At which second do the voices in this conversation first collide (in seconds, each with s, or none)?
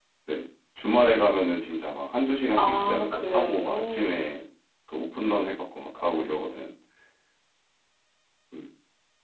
2.6 s